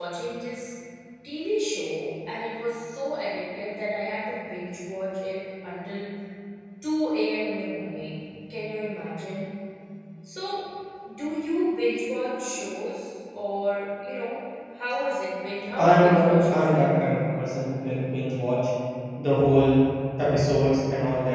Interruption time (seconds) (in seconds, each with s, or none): 15.8 s